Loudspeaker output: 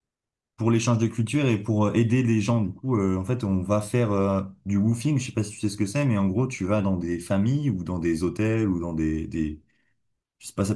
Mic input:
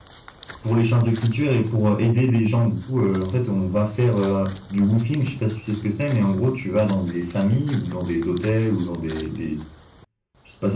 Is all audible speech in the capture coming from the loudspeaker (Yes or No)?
Yes